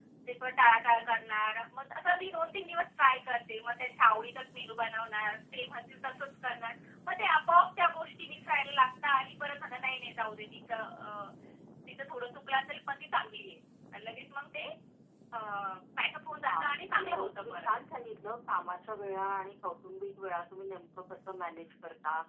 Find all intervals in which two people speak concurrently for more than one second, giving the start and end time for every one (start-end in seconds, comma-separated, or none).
16.5-17.7